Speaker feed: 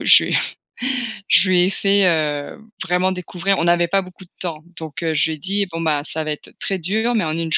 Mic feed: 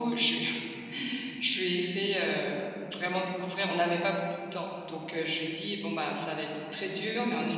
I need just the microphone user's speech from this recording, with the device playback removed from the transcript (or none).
none